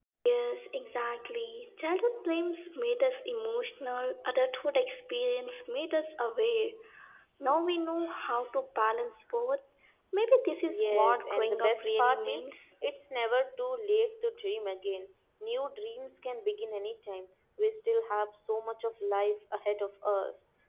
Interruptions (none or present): present